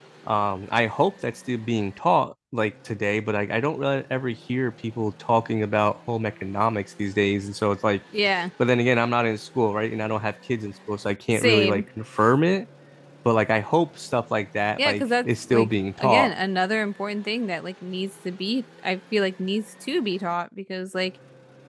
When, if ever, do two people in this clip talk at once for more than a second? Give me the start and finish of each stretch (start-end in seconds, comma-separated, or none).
14.8-16.3